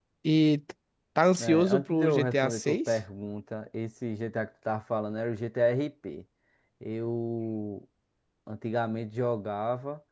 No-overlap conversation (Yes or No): No